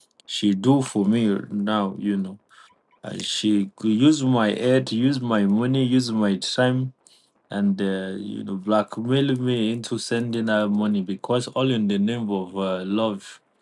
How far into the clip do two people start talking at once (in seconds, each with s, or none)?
none